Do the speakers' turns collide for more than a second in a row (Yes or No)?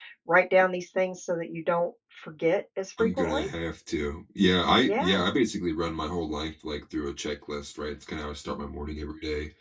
No